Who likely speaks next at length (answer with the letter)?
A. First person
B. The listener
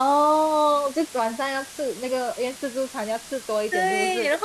B